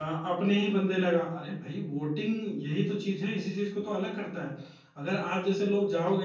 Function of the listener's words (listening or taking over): listening